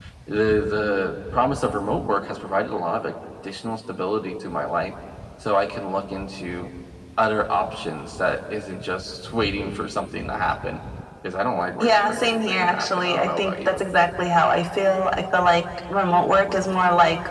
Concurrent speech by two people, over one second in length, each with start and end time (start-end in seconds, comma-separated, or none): 11.8-13.8